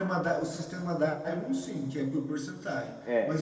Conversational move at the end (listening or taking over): listening